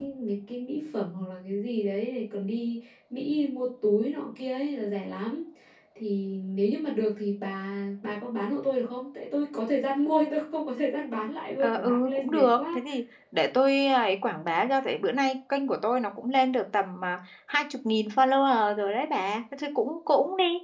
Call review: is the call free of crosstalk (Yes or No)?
No